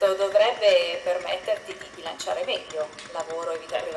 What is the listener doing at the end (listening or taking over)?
taking over